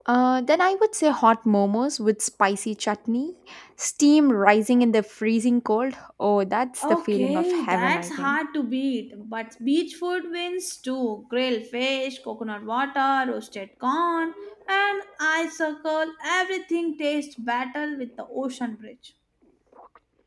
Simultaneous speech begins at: 6.8 s

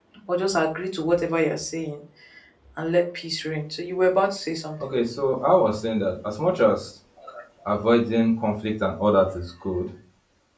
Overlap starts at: none

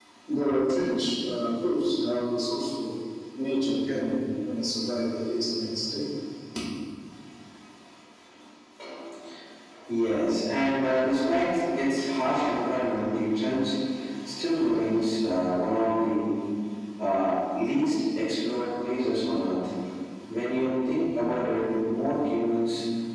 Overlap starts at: none

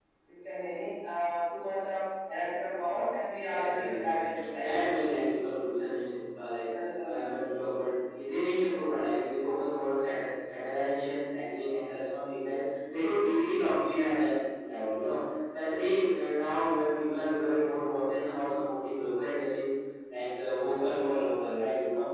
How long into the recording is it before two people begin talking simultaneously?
3.4 s

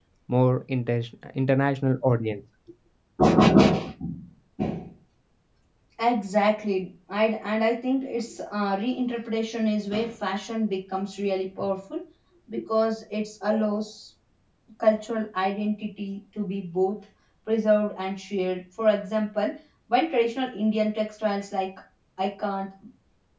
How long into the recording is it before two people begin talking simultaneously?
none

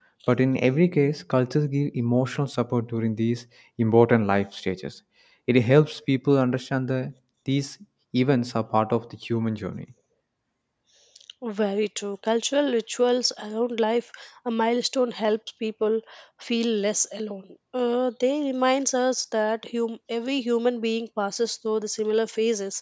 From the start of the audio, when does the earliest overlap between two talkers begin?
none

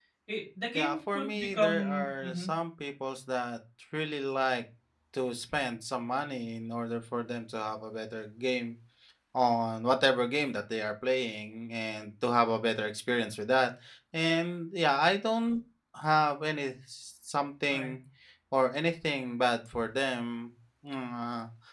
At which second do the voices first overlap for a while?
0.8 s

